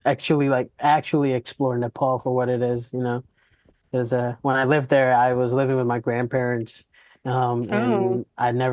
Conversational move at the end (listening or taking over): listening